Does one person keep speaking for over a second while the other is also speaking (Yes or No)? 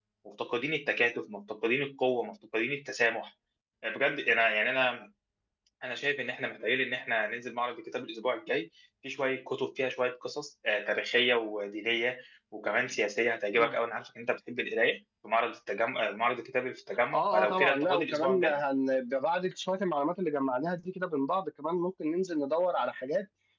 Yes